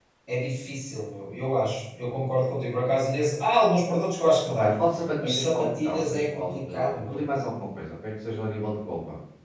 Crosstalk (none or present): present